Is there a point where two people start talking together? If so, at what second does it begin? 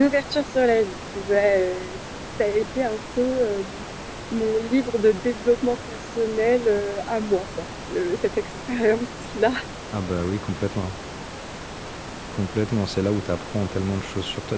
none

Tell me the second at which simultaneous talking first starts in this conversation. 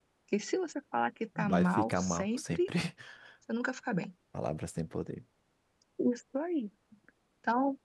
1.4 s

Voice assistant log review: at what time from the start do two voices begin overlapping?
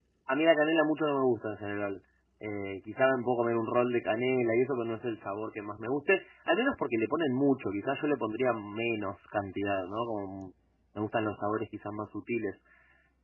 none

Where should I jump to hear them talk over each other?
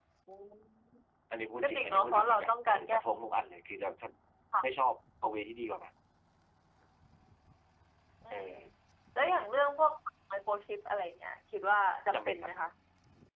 1.6 s

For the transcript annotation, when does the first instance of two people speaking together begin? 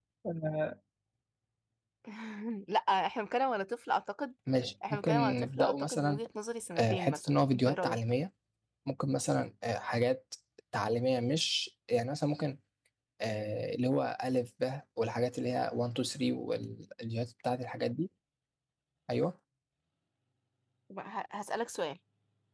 4.9 s

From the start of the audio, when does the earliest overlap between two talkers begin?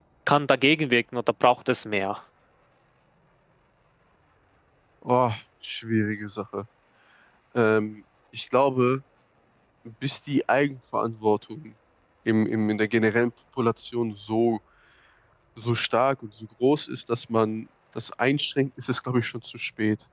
none

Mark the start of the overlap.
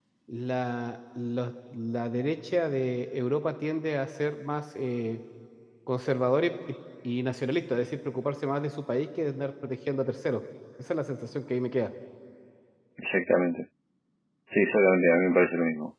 none

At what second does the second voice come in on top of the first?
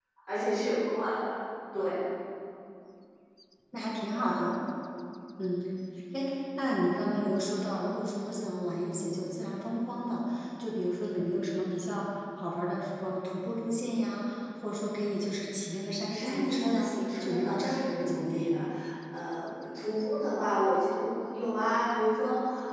16.1 s

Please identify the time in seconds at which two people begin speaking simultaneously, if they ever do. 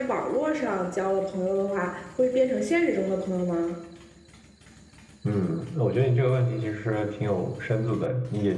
none

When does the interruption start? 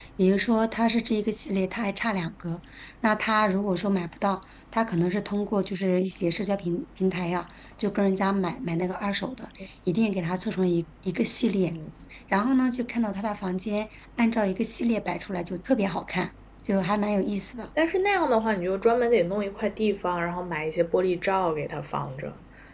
none

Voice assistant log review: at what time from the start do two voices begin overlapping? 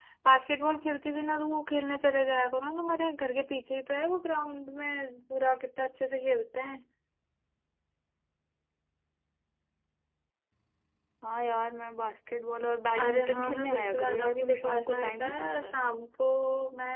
12.9 s

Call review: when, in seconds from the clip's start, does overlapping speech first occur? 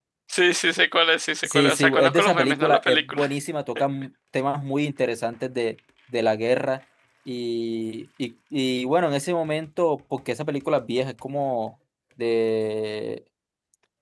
1.4 s

